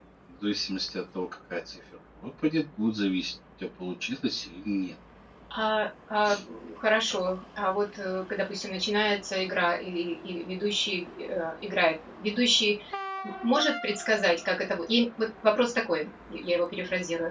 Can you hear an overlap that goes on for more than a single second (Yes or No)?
No